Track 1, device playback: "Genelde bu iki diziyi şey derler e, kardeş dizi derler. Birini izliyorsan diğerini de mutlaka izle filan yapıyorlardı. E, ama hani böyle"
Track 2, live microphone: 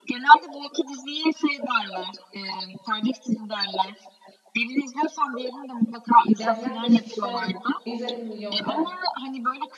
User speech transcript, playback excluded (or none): Yani yaklaşık işte 150 milyon de